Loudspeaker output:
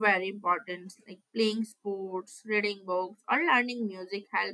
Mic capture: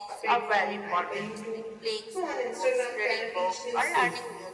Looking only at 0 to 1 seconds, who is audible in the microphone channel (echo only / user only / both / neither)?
both